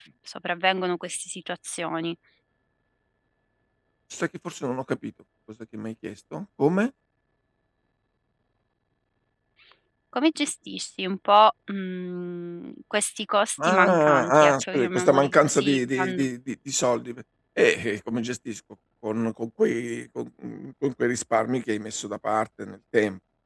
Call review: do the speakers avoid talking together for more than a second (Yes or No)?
No